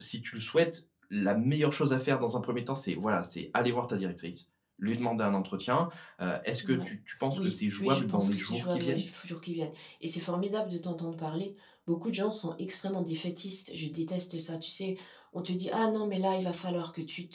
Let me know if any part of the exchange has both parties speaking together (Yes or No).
Yes